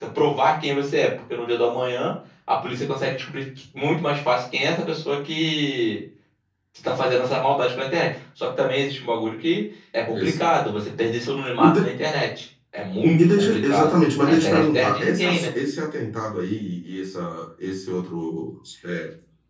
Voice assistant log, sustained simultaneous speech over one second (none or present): present